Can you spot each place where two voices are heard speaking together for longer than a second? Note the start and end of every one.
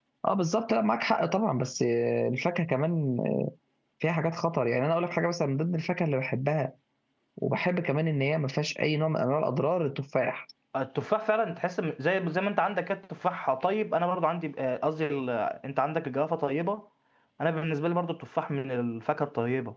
none

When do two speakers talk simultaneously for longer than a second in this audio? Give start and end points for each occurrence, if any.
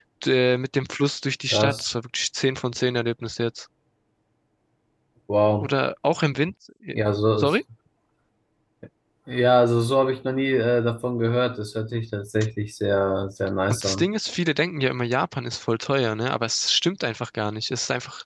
none

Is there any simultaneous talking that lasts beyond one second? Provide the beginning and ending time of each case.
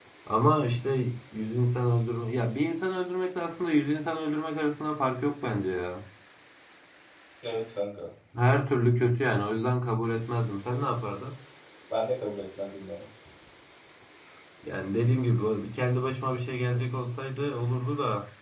none

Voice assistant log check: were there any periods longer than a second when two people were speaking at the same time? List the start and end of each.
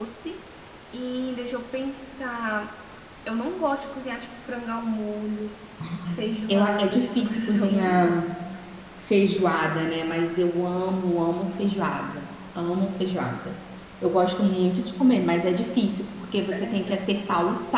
6.1-8.3

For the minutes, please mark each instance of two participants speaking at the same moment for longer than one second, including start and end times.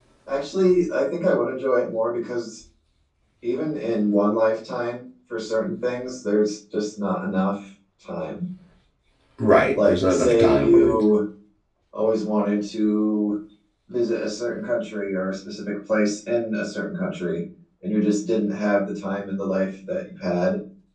9.7-11.0

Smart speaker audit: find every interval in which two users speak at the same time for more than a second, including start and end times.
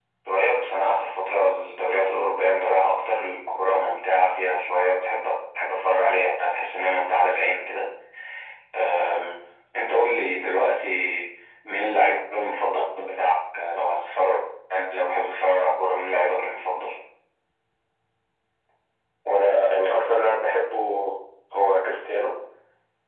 none

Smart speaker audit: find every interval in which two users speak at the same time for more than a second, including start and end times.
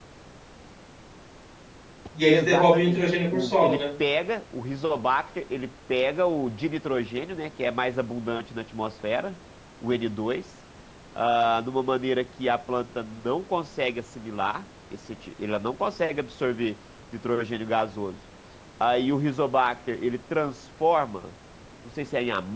2.3-3.8

